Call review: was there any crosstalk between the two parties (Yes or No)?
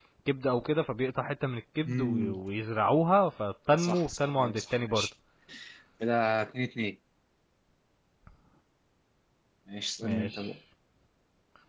Yes